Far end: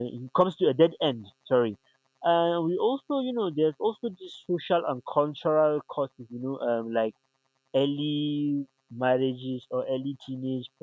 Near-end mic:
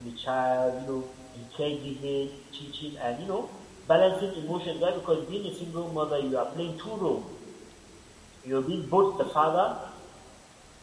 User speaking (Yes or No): Yes